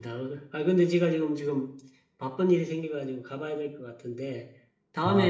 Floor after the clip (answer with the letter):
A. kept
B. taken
A